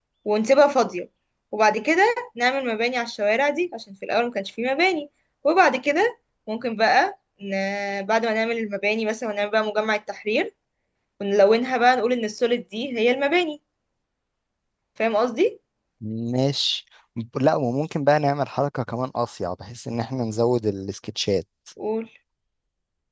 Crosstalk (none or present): none